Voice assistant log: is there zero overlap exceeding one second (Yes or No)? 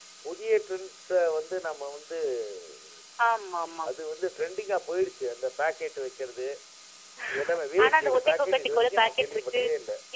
No